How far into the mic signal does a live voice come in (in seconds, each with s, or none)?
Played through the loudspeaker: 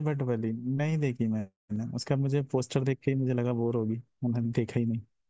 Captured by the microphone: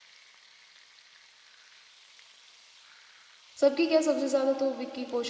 3.6 s